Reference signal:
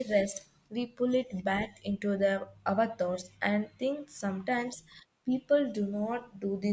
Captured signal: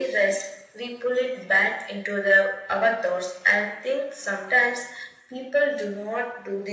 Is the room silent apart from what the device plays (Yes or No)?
Yes